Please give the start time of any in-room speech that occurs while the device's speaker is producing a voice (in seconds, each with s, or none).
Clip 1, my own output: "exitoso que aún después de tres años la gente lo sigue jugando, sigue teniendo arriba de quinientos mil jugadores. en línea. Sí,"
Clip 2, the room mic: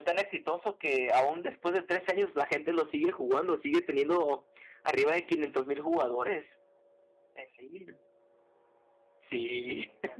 none